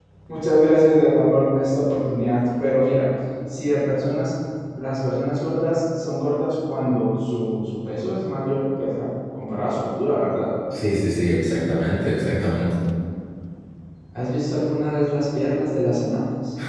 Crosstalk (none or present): none